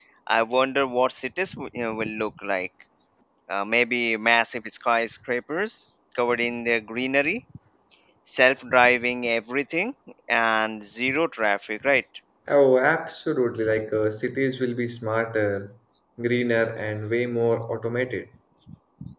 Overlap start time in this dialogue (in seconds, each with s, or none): none